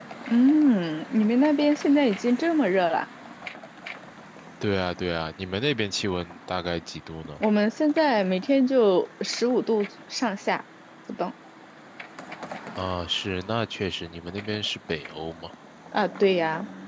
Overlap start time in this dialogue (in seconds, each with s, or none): none